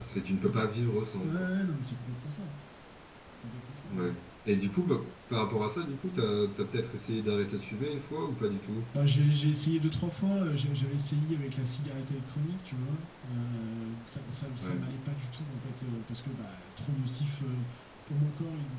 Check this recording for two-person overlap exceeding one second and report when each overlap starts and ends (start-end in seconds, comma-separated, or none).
none